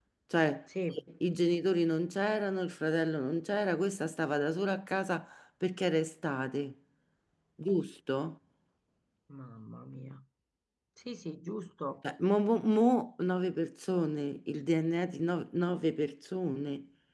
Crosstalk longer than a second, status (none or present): none